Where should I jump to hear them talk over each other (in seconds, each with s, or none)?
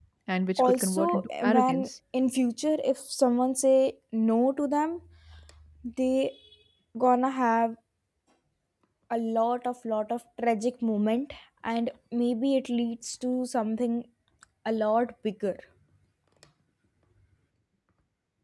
0.6 s